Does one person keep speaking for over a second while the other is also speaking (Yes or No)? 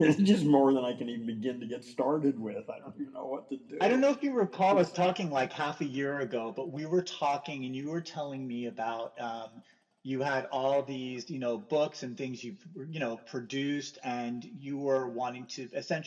No